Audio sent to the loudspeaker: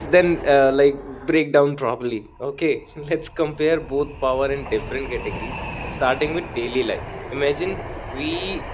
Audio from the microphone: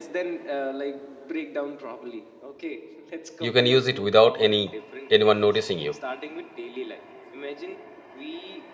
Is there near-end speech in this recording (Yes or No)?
Yes